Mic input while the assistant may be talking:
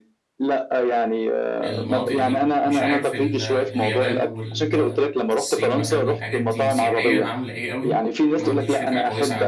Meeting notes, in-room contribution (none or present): present